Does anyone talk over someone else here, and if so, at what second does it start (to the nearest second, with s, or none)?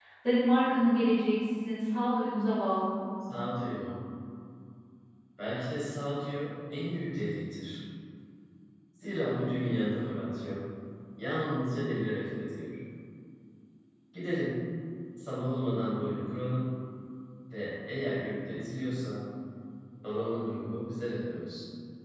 none